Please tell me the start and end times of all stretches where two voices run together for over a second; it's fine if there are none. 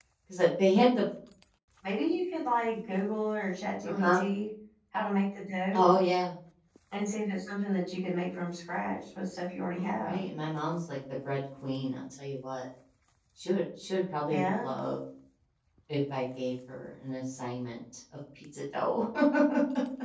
none

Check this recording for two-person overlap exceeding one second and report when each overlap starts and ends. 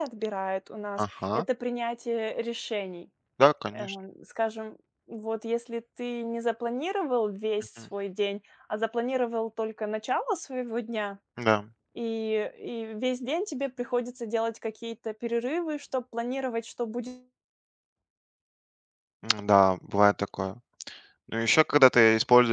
none

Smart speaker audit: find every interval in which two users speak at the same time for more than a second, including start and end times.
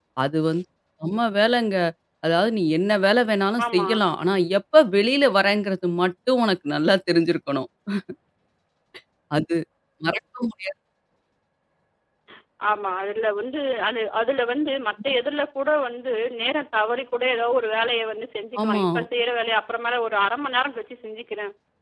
none

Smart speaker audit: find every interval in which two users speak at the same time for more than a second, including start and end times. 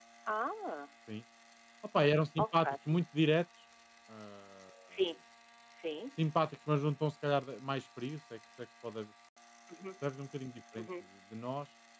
none

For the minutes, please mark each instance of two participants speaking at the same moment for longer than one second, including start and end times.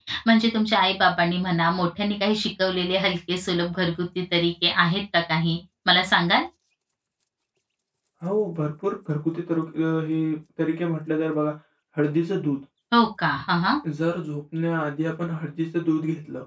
none

